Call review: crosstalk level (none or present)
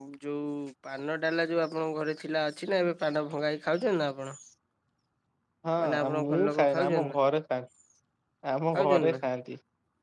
present